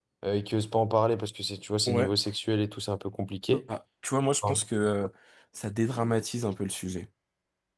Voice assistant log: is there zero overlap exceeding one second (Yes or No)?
Yes